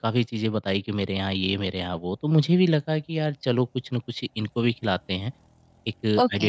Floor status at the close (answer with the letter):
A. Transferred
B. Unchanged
B